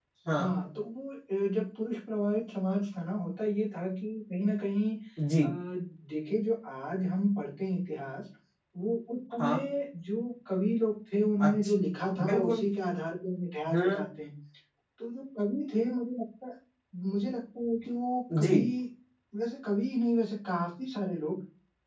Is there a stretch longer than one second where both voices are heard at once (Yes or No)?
No